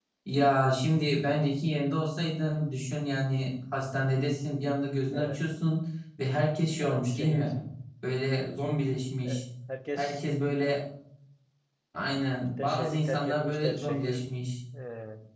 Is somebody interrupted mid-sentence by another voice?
Yes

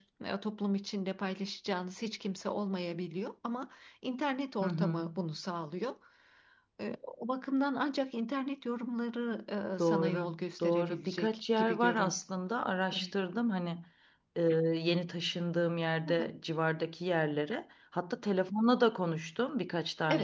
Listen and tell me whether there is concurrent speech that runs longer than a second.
Yes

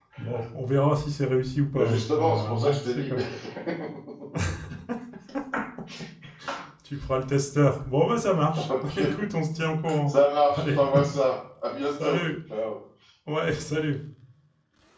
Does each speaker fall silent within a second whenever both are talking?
No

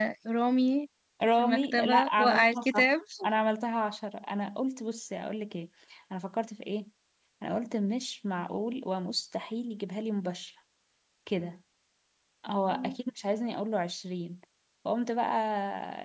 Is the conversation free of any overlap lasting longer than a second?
No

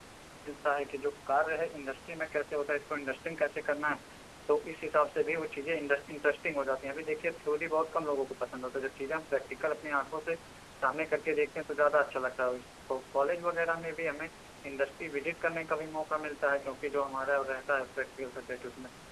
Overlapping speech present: No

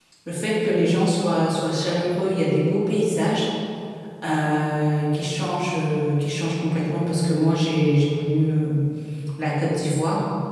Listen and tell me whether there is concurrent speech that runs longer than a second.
No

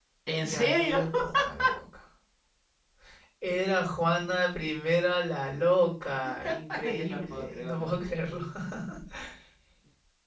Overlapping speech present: Yes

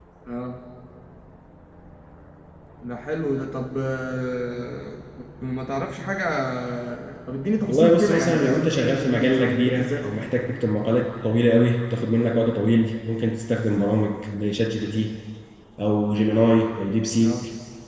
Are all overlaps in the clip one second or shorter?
No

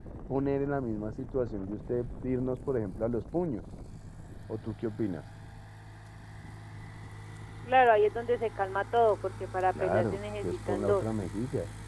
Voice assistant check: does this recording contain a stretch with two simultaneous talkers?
Yes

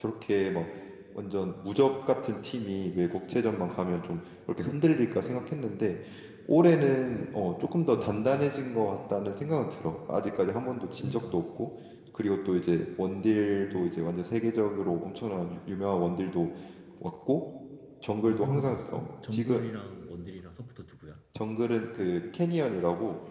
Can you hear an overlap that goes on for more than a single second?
Yes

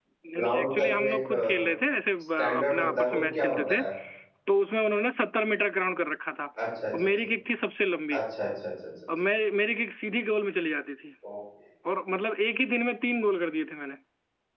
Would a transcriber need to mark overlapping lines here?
Yes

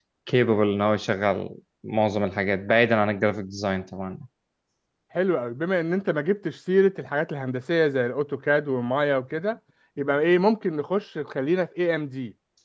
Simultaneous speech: No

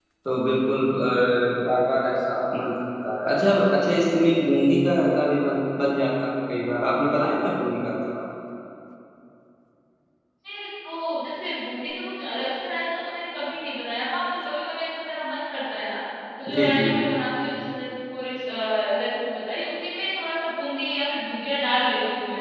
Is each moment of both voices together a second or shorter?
Yes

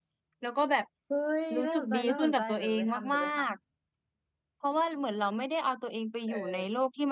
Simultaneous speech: Yes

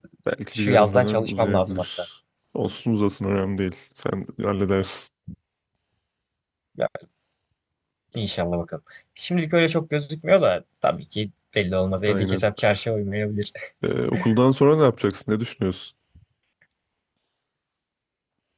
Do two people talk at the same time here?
Yes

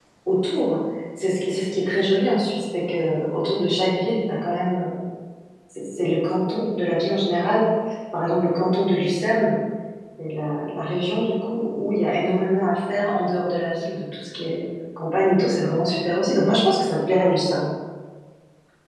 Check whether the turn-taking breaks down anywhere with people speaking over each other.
No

